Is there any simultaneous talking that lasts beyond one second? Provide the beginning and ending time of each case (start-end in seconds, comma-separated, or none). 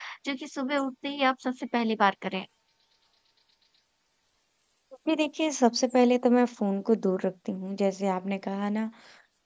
none